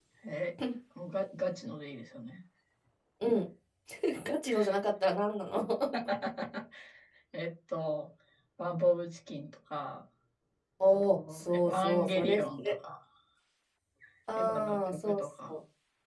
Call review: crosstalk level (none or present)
present